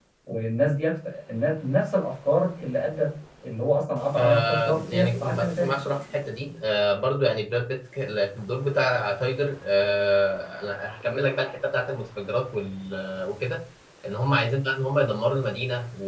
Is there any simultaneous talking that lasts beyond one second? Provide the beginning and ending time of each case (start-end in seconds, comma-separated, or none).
4.2-5.8